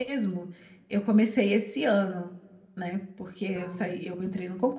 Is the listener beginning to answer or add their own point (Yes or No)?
No